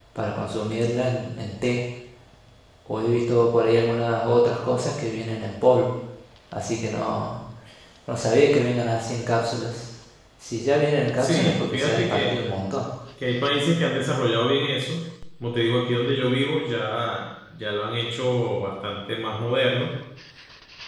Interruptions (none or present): present